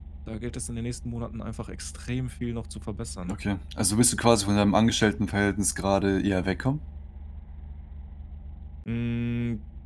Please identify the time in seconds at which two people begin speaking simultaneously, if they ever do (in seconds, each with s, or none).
none